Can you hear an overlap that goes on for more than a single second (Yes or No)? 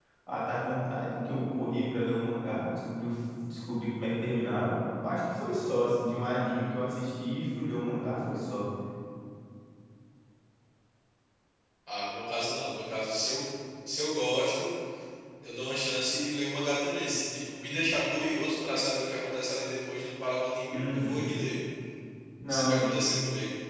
No